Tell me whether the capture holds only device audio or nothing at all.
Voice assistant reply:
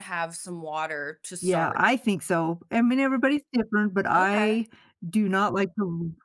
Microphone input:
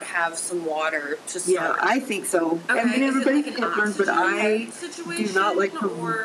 No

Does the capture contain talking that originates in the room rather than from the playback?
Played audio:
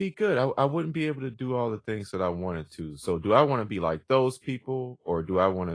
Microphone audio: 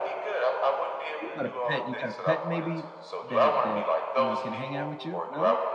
Yes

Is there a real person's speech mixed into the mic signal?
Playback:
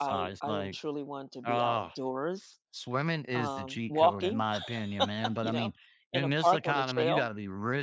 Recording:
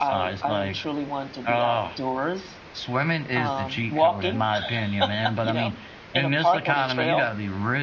No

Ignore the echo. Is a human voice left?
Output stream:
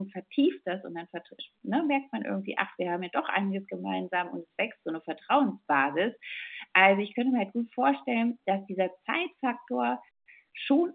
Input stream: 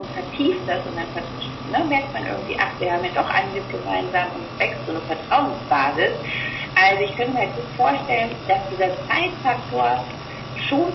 No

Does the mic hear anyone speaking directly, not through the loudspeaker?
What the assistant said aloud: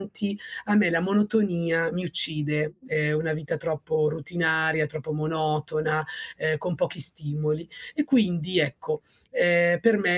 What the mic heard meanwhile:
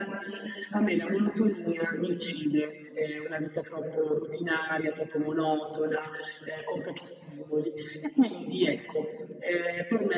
No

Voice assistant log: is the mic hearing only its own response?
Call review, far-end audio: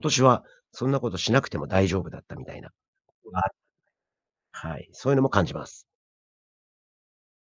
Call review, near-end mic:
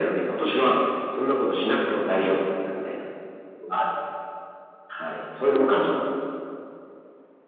Yes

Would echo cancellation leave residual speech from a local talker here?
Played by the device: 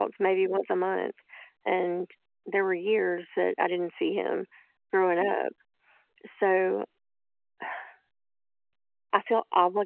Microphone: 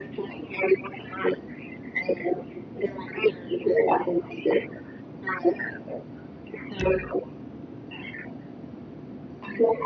No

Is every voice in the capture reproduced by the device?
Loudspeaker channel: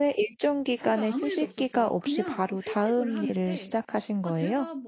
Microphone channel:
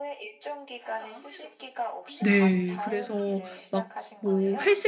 No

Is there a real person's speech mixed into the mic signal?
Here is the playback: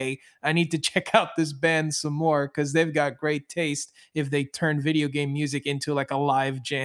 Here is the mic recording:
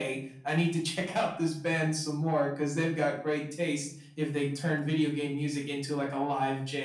No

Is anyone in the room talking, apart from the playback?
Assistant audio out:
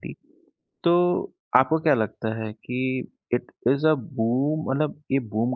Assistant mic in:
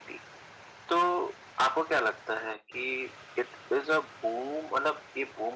No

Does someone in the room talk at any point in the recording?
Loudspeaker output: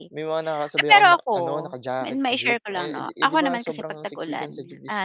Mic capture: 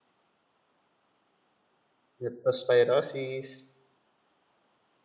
Yes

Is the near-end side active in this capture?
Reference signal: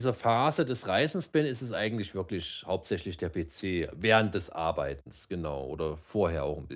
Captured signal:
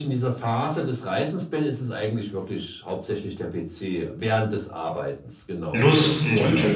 Yes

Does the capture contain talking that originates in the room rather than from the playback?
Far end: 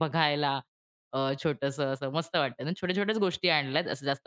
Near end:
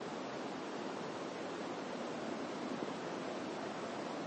No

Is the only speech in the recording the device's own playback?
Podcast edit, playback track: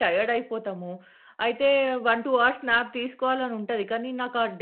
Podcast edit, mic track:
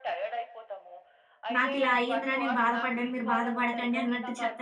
No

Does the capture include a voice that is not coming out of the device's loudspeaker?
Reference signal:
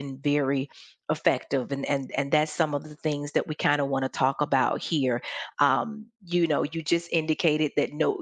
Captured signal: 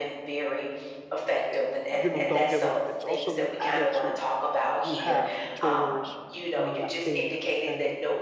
Yes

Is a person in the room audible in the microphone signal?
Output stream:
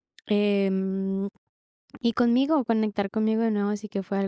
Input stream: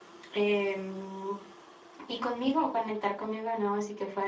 No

